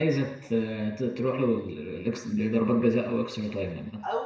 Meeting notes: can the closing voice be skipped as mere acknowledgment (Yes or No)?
No